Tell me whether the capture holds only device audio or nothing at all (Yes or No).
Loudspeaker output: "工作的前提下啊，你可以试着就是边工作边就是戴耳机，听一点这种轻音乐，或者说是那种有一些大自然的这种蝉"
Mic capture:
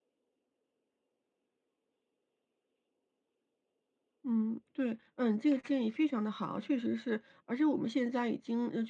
No